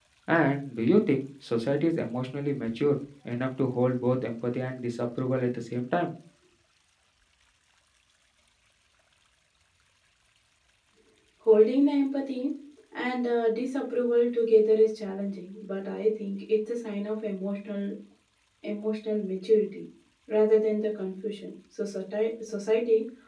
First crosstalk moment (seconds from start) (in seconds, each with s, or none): none